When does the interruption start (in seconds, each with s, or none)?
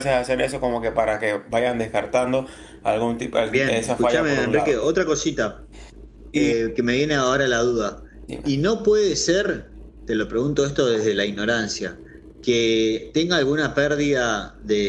3.5 s